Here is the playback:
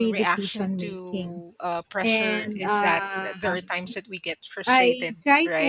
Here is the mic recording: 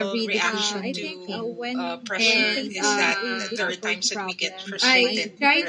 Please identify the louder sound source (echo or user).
echo